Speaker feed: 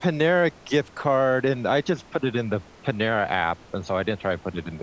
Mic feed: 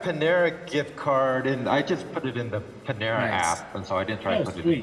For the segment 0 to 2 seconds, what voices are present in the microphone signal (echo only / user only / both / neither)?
echo only